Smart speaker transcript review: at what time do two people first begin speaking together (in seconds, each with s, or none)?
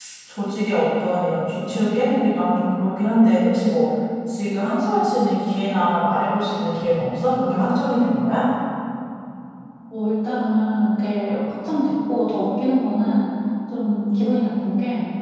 none